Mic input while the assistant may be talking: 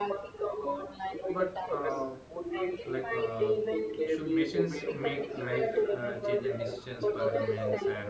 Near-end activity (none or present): present